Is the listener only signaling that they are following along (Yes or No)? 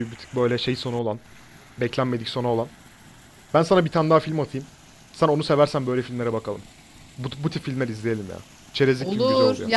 No